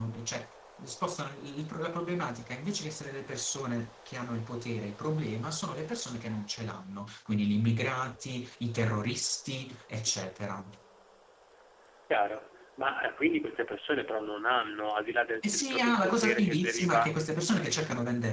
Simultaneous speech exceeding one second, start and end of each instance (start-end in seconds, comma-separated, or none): 15.4-17.1